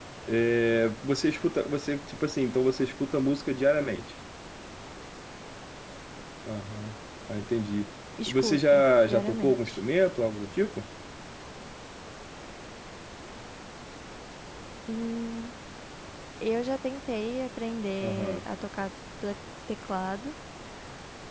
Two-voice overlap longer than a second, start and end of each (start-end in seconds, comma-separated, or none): 8.3-9.7